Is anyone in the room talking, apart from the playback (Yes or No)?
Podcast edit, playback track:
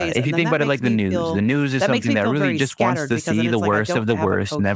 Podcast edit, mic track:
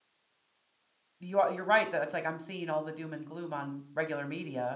Yes